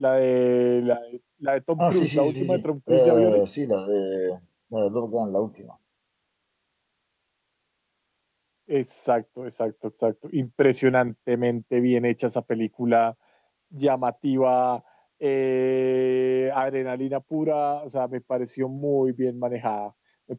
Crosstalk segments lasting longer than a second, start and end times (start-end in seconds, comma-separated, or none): 1.8-3.4